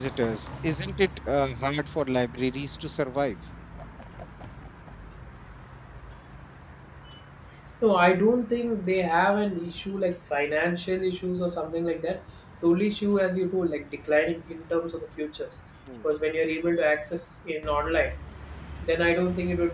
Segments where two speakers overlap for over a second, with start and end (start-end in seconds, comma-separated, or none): none